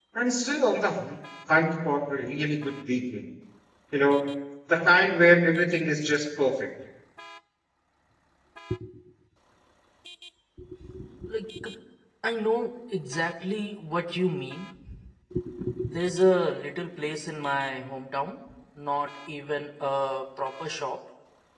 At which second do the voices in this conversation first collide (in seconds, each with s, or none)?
none